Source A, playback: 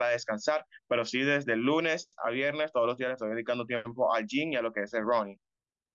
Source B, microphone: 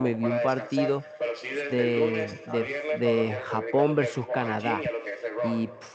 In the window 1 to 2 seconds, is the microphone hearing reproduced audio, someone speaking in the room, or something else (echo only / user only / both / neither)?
both